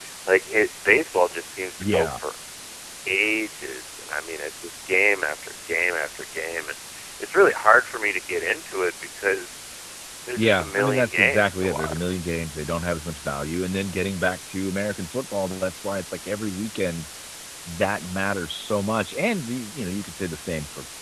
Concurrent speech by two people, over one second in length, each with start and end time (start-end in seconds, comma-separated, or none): 10.4-12.2